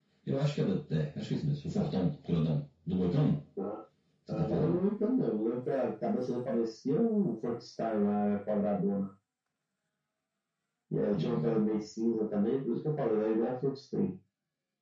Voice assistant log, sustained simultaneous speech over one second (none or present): none